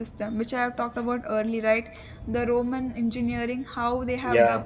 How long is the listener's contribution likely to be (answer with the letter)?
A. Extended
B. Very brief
B